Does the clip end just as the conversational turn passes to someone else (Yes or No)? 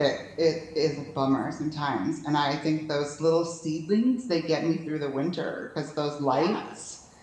No